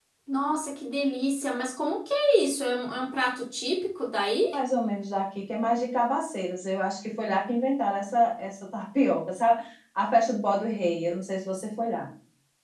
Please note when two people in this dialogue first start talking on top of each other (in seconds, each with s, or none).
none